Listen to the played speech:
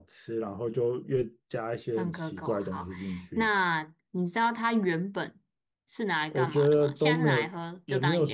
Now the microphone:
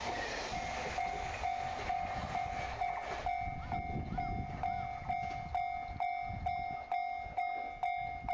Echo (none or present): none